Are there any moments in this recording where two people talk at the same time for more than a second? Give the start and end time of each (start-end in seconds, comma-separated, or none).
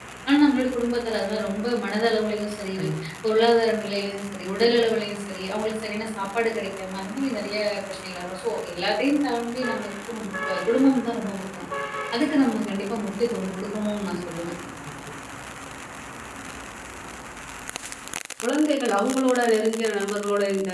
none